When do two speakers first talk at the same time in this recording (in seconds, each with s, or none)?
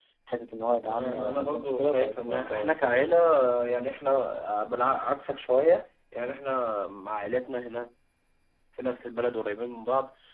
0.9 s